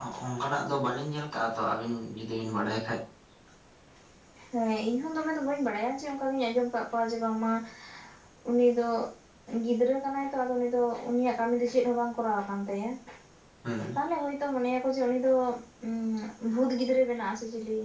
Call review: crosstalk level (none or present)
none